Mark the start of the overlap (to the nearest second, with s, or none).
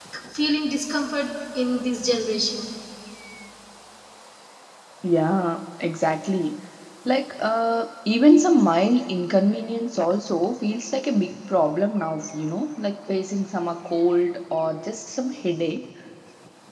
none